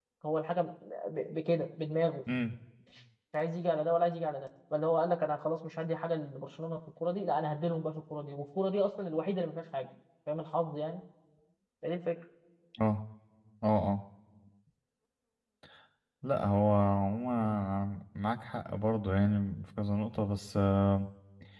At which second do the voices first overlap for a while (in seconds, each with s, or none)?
none